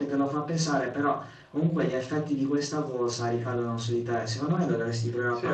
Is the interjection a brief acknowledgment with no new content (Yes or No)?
Yes